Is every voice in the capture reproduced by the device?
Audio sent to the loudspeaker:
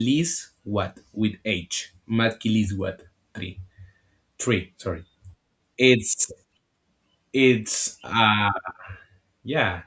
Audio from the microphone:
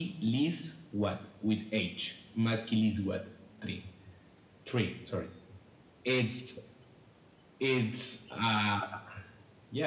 Yes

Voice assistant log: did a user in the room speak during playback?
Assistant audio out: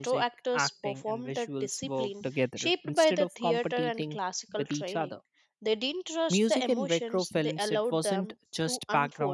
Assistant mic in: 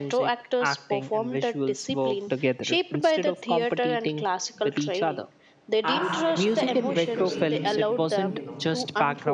Yes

